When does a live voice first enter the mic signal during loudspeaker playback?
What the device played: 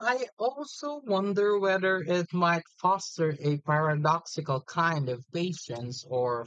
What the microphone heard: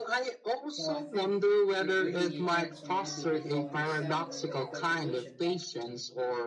0.8 s

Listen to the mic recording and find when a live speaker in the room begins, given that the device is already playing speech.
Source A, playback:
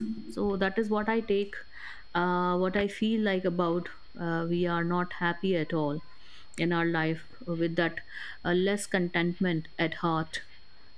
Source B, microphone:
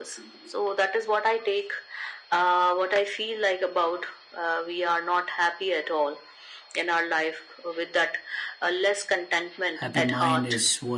9.7 s

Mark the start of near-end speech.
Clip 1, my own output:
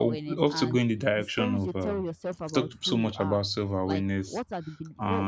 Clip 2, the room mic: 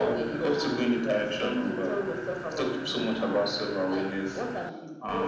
none

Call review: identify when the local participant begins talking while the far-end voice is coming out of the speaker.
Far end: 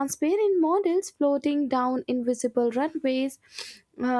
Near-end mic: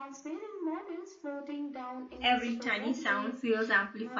2.2 s

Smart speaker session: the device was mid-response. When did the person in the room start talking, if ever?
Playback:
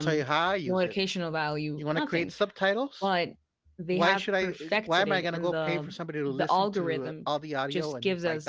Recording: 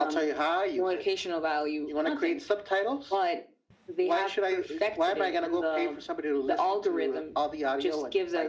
none

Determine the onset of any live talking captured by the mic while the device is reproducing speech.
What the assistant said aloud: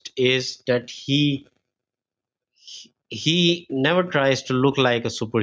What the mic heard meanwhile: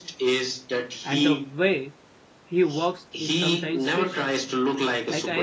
1.0 s

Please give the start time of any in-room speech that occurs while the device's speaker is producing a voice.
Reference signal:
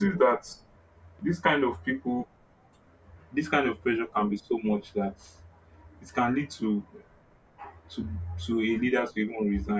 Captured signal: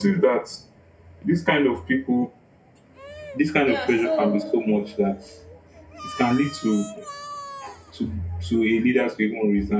3.6 s

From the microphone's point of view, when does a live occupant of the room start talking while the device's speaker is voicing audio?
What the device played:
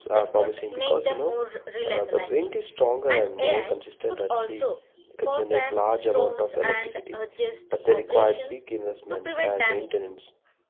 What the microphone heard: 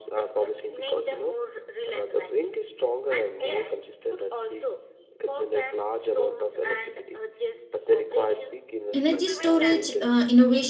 8.9 s

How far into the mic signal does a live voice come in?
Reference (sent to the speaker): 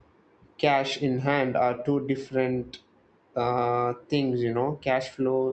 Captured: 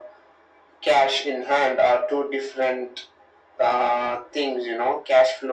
none

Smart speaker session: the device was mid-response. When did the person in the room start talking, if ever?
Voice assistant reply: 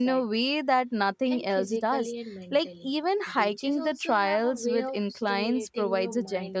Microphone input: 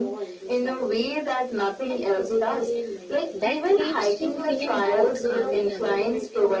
3.3 s

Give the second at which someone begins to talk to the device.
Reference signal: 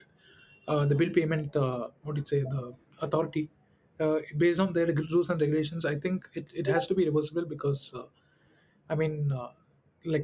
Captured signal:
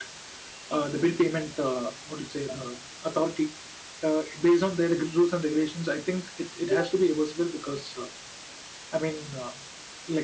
none

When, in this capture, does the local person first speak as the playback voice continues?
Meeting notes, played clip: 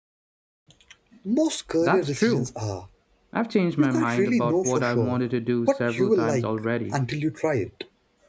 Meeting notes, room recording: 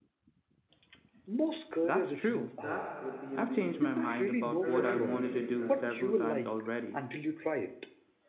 2.6 s

